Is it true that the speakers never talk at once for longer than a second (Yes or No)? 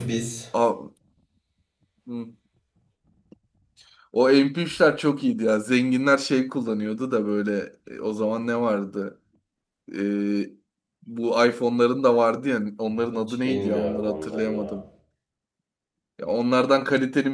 No